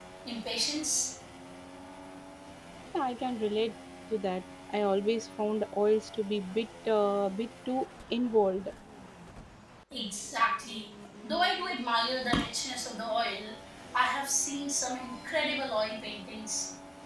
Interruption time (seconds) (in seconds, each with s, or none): none